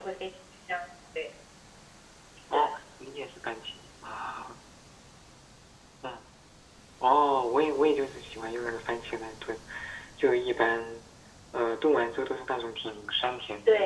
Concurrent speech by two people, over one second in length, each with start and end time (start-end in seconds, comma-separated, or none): none